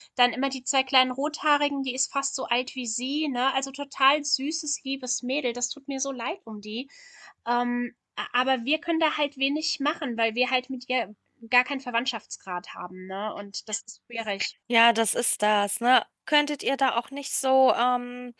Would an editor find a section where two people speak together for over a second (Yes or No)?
No